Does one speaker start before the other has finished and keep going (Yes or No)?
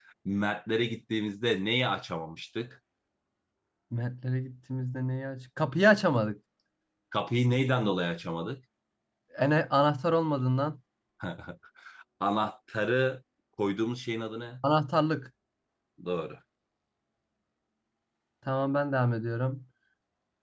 No